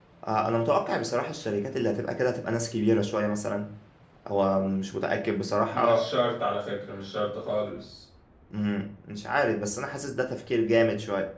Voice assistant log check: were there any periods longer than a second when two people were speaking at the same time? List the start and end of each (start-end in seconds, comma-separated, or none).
none